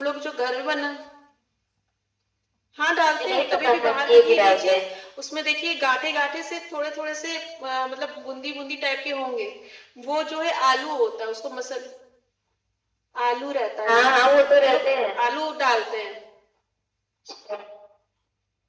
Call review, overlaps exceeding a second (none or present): present